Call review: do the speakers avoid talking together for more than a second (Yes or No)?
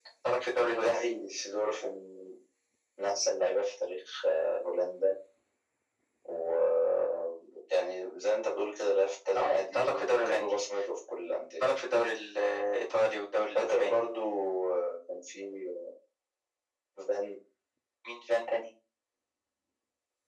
No